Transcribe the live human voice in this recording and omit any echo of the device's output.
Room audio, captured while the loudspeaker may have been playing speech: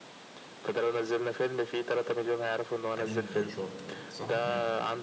قديم رشاط صح امم

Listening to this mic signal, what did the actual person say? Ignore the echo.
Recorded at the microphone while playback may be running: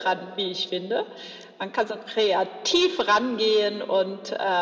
none

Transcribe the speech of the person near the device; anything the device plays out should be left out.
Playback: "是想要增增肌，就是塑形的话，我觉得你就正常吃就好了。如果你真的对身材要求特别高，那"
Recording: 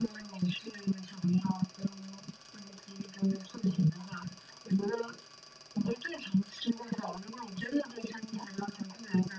none

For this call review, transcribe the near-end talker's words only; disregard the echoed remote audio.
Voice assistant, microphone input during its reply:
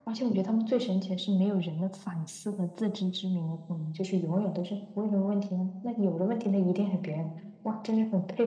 none

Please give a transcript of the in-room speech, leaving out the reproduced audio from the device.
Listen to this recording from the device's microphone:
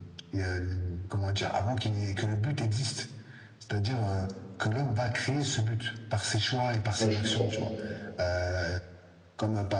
Ouais, je comprends.

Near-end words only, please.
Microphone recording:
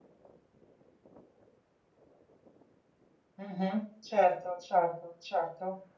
mhm, Certo, certo, certo.

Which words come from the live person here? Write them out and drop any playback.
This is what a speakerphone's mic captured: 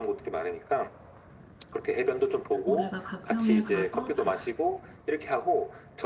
우리가 가평에 가서 바,

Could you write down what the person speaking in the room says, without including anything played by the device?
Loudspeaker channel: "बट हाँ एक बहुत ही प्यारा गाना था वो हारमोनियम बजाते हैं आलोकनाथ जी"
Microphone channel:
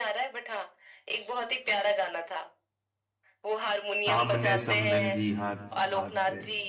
सामने समधन जी हाथ हाथ में

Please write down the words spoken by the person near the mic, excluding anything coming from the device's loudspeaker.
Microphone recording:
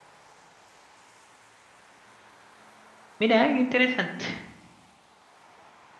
Mira, qué interesante.

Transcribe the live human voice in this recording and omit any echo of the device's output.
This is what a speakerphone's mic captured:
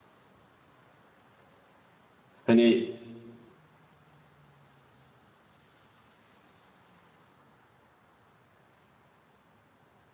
Hani

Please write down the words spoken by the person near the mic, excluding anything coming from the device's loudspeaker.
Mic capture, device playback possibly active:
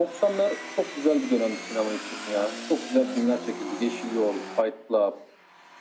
none

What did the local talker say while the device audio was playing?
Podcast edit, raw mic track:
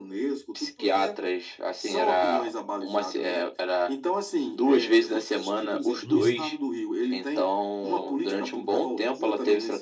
Uhum.

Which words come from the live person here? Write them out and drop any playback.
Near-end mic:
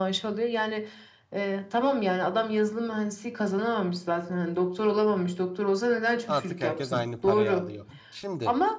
Artık herkes aynı parayı alıyor. Şimdi

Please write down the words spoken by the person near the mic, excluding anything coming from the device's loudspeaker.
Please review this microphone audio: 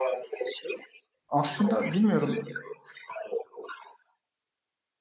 aslında bilmiyorum

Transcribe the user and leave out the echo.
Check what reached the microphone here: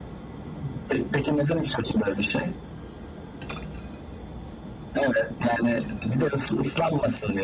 none

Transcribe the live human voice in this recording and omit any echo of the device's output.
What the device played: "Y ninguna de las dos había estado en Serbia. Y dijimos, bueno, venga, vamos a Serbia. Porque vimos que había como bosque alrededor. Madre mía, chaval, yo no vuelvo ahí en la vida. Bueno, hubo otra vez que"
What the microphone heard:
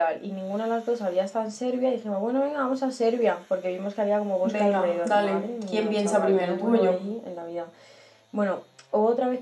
Venga, dale. ¿Quién piensa primero, tú o yo?

